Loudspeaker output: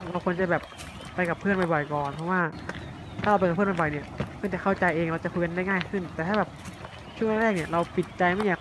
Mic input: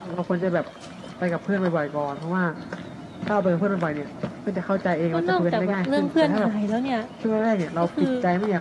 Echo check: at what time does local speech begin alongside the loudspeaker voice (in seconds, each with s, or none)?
5.1 s